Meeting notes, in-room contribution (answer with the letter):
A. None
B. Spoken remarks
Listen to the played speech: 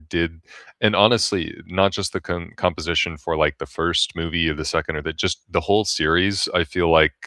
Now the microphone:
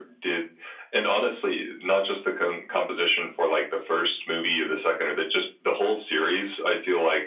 A